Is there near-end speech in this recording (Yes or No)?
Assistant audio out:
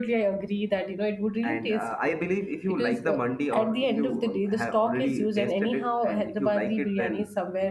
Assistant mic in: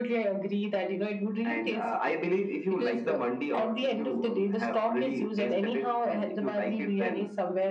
No